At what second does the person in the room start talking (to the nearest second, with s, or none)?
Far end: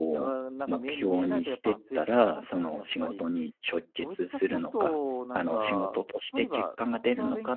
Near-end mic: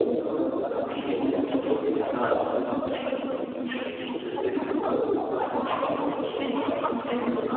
none